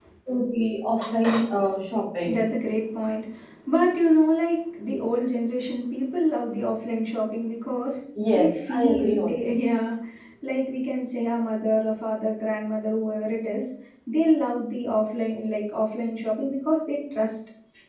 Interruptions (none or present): present